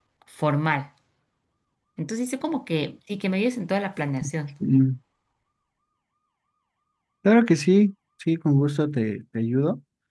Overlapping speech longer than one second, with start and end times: none

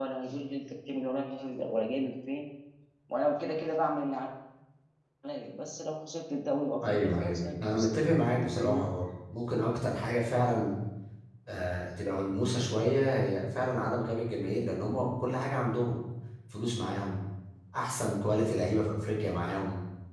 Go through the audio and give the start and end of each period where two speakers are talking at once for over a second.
6.9-8.1

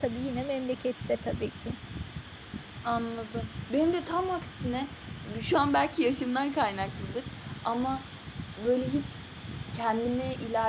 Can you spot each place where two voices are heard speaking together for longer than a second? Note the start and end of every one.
none

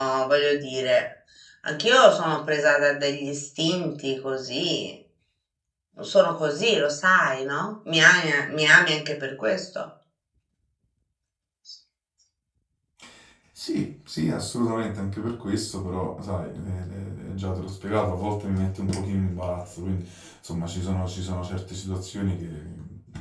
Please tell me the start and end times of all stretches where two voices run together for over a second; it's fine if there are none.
none

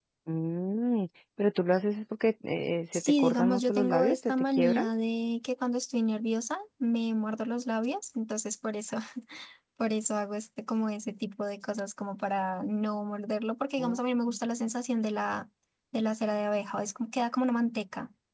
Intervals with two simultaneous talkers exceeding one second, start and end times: 2.9-4.8

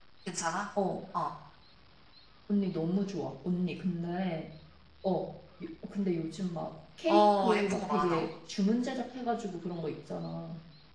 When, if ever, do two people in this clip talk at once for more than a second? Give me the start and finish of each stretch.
7.1-8.3

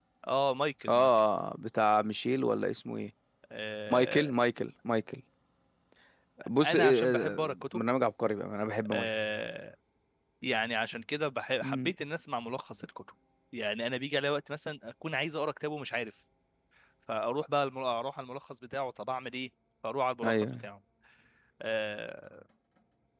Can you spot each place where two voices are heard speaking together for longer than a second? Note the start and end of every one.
6.6-7.8

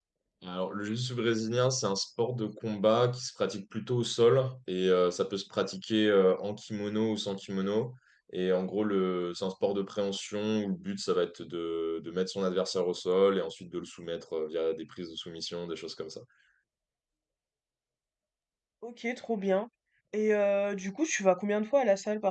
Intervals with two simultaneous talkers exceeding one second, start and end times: none

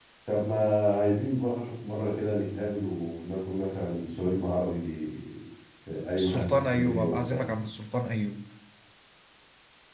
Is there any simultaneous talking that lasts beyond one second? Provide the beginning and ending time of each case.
6.2-7.4

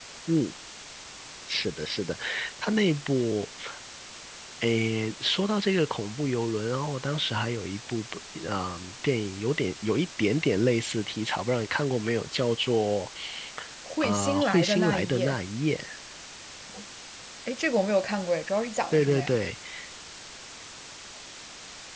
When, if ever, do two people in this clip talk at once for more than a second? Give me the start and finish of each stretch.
14.0-15.4

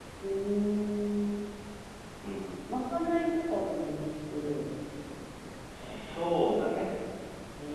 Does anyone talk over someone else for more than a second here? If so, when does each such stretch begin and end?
none

